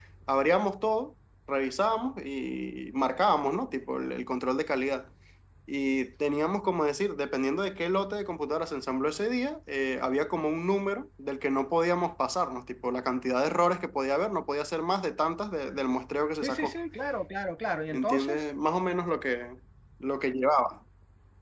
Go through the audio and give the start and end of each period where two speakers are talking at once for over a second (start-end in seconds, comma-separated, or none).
none